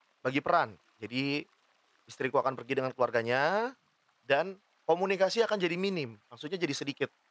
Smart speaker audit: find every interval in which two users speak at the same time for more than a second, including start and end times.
none

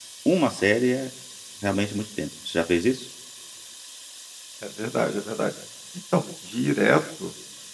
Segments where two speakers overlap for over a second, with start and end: none

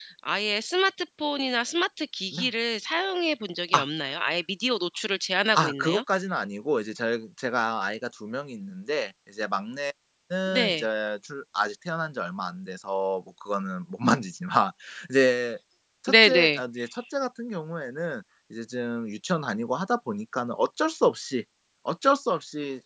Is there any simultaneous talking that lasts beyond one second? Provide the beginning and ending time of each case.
none

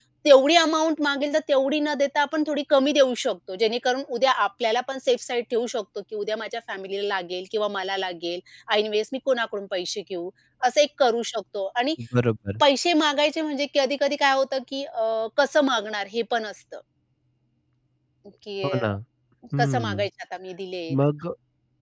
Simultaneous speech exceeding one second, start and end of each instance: none

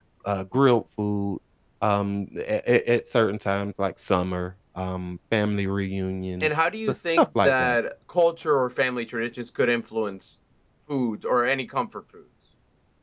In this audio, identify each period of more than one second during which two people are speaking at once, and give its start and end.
6.4-7.8

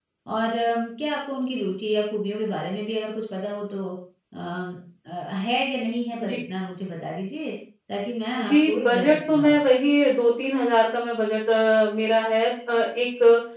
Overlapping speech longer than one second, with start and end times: 8.4-9.7

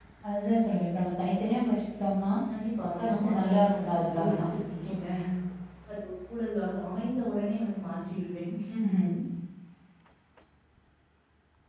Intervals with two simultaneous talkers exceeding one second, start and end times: 3.0-4.4

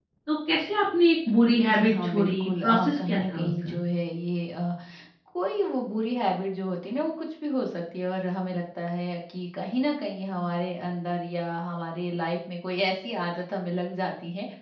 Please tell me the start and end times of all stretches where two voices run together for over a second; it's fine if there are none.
1.3-3.8

